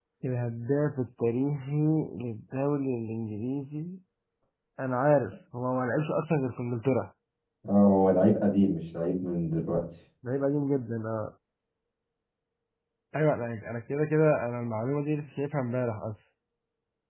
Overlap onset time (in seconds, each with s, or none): none